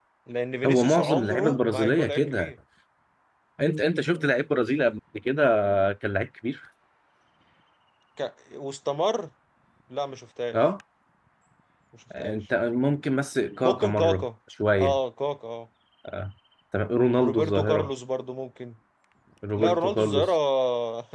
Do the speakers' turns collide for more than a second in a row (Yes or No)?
Yes